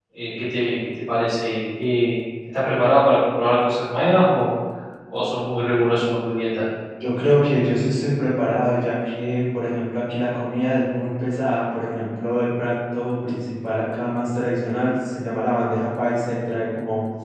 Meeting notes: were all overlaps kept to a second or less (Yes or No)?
Yes